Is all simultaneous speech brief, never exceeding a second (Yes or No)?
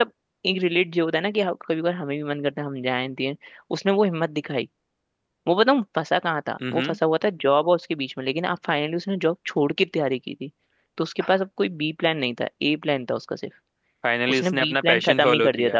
No